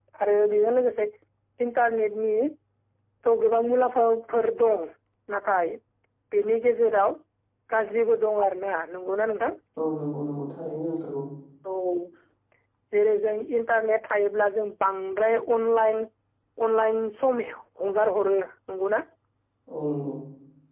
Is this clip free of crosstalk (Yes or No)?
Yes